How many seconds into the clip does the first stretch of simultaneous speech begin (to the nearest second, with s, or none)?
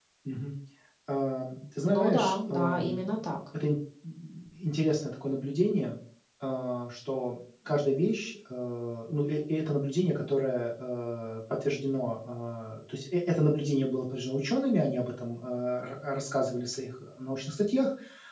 2 s